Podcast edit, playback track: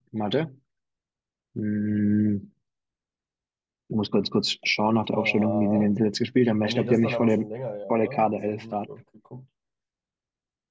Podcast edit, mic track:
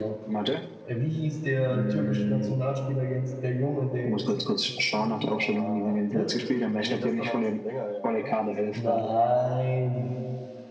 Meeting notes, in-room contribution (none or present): present